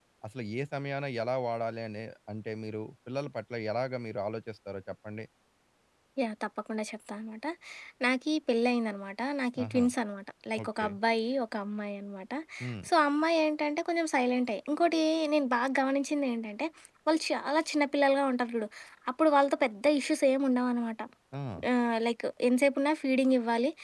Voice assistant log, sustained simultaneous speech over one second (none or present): none